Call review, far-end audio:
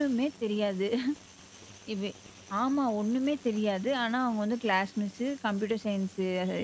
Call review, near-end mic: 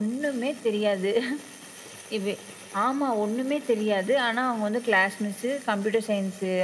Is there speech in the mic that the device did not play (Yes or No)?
No